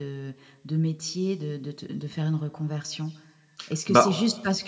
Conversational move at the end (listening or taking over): listening